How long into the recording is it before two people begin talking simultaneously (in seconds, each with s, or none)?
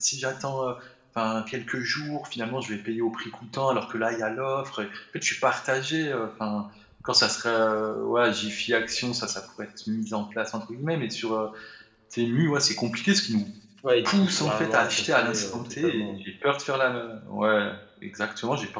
14.1 s